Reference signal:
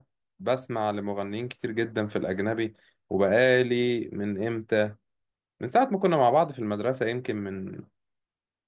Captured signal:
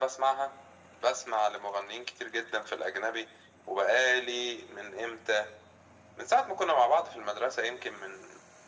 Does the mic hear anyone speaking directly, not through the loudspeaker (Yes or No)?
No